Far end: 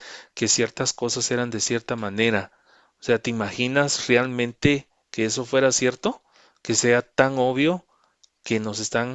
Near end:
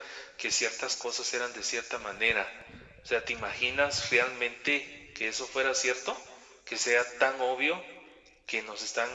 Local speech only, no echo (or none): none